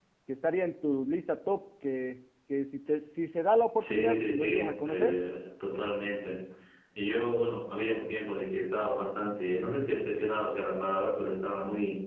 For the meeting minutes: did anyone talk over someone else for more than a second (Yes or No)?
Yes